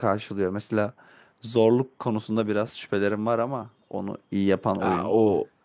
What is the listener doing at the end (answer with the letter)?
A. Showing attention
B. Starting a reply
B